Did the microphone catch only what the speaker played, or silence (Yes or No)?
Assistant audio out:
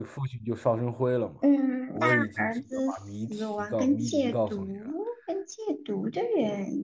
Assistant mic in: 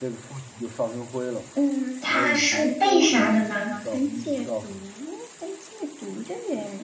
No